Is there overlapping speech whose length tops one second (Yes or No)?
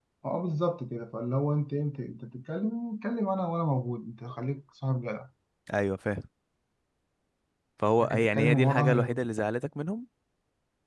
Yes